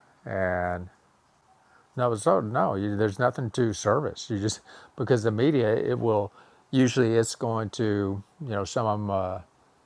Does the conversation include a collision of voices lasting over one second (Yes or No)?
No